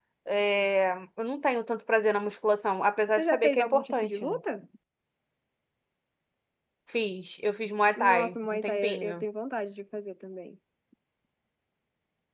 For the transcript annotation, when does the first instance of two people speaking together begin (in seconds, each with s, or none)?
3.2 s